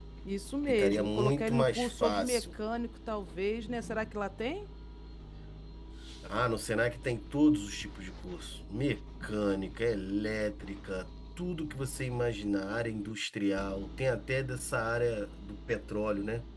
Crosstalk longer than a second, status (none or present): present